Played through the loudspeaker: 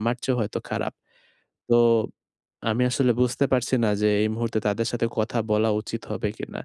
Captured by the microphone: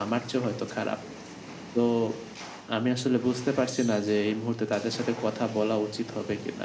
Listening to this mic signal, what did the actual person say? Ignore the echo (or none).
none